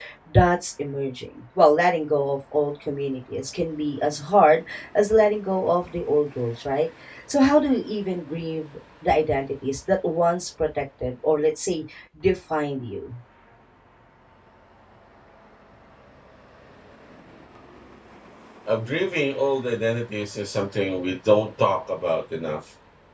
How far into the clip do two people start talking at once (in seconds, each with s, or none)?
none